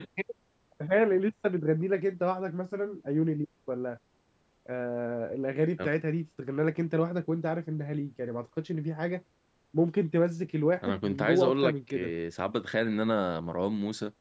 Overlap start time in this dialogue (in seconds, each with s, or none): 10.8 s